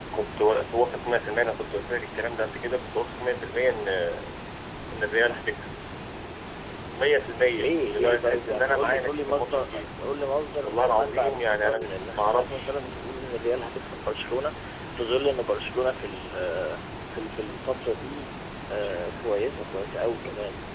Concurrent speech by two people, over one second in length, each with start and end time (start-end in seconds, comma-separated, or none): 7.5-9.8, 10.6-12.8